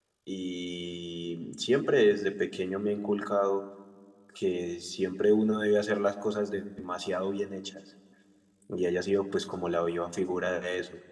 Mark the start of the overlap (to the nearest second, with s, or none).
none